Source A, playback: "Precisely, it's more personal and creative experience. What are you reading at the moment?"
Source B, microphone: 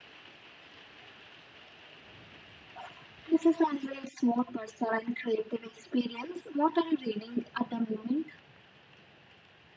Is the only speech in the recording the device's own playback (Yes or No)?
Yes